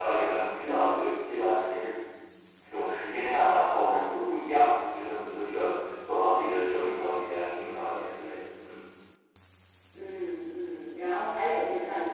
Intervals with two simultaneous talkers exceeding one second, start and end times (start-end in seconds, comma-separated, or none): none